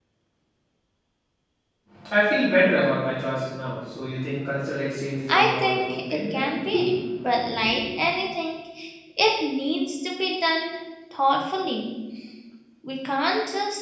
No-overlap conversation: No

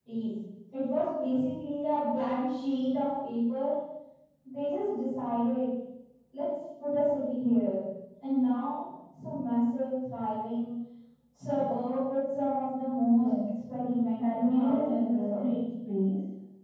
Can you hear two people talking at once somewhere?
Yes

